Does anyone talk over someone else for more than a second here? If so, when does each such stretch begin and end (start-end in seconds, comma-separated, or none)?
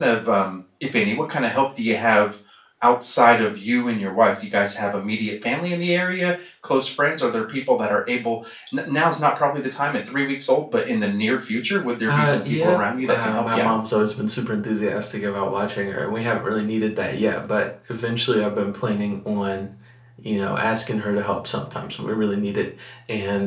12.1-13.7